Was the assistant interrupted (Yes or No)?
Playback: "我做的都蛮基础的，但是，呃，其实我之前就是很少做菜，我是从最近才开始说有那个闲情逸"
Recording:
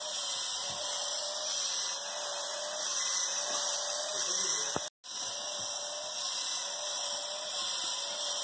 No